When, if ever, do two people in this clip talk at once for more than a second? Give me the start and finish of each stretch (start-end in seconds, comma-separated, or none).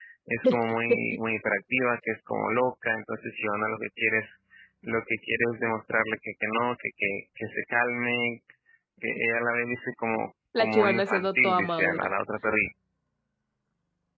10.6-12.1